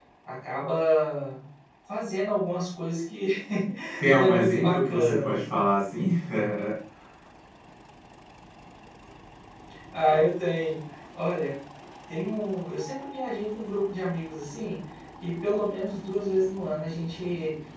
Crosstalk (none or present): present